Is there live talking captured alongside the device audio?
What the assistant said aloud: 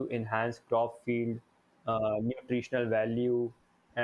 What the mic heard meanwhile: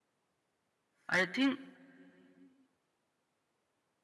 Yes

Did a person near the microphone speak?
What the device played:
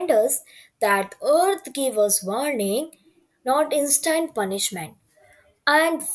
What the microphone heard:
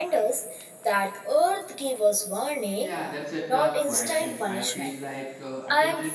Yes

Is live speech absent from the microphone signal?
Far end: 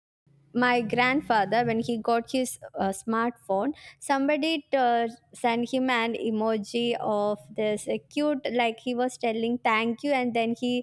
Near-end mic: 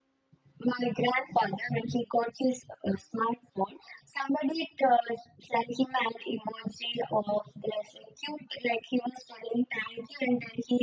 Yes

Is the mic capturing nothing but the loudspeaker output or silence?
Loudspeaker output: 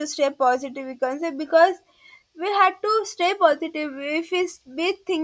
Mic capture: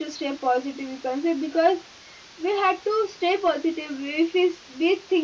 Yes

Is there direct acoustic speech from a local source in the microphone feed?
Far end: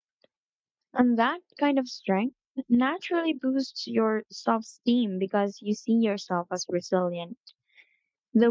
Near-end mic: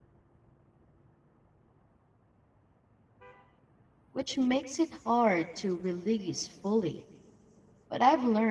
Yes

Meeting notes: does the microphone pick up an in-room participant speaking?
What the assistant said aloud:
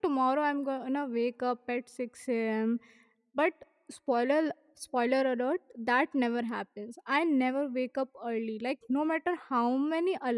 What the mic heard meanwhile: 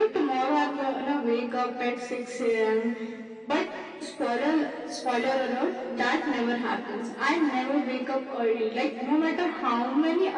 No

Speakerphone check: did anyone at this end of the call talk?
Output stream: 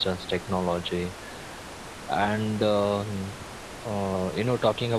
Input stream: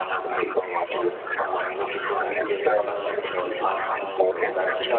Yes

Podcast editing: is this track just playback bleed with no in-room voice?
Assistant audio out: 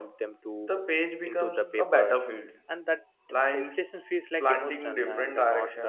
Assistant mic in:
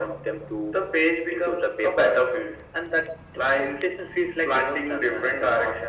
Yes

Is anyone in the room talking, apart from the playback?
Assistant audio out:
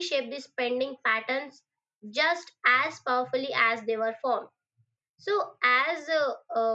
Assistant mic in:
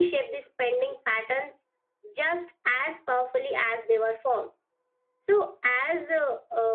No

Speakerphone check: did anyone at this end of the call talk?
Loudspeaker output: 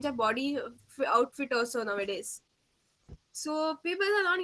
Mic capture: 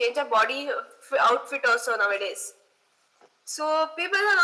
No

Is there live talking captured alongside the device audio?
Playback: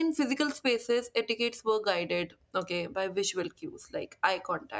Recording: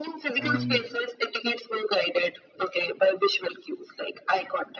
Yes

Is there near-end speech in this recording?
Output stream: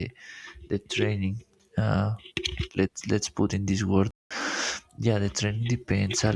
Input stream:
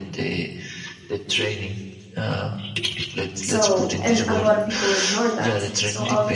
Yes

